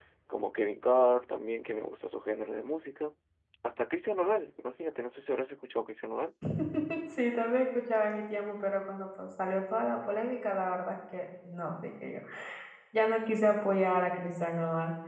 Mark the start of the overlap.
none

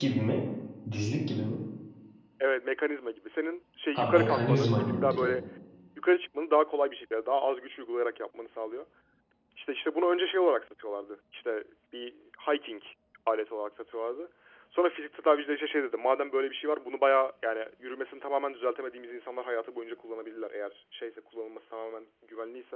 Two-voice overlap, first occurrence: 3.9 s

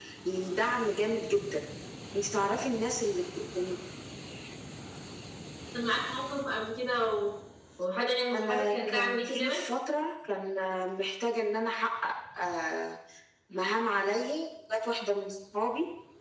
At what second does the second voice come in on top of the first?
8.3 s

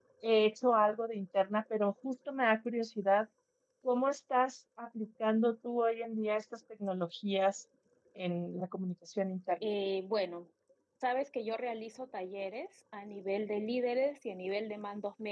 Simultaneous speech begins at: none

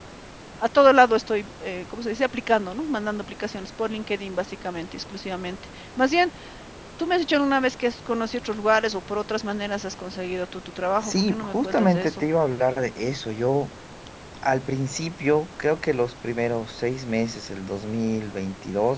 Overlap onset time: 11.0 s

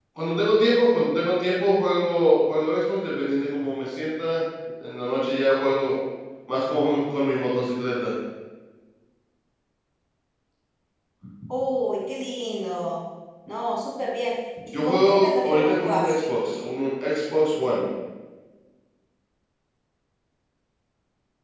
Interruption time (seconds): 14.7 s

